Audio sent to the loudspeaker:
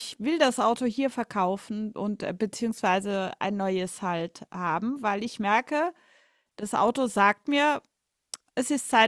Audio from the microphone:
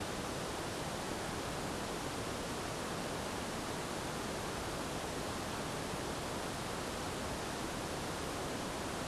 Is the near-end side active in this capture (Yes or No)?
No